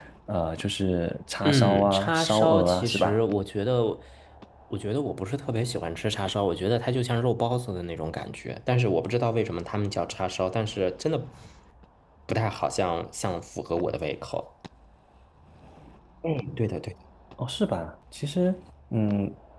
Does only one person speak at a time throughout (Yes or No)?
No